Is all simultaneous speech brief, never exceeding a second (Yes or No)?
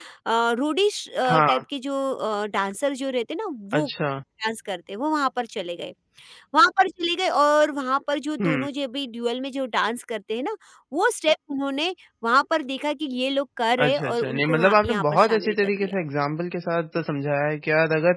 No